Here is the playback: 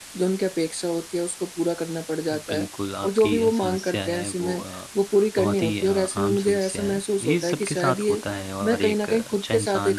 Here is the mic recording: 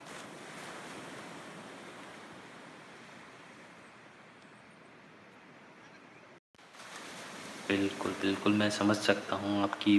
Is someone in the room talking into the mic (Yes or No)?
Yes